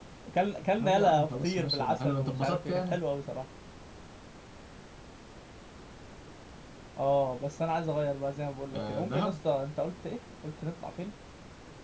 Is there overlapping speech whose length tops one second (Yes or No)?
Yes